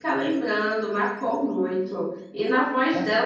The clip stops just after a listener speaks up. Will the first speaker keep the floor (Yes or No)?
Yes